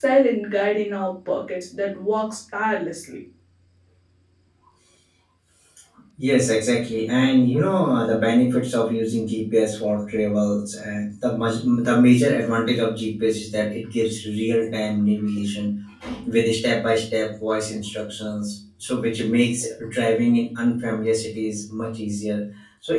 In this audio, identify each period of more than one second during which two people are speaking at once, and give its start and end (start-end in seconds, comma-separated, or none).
none